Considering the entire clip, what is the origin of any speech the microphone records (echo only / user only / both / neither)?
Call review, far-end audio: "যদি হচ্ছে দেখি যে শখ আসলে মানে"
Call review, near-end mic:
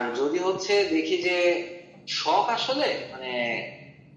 echo only